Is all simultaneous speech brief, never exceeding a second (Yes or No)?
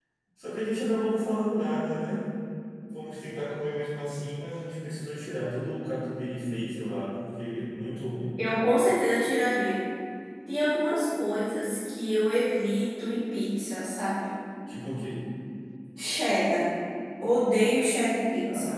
Yes